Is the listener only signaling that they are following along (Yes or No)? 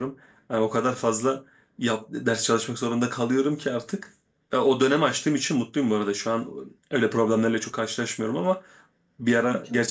Yes